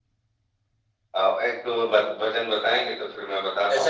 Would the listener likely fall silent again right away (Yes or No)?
No